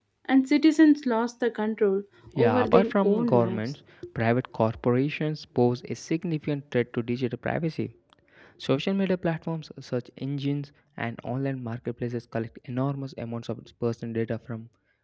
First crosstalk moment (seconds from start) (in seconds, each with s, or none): 2.3 s